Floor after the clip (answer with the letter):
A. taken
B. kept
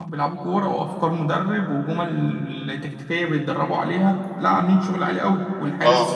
B